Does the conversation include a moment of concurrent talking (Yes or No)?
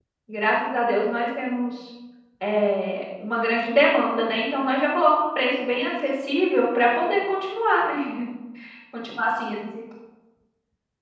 No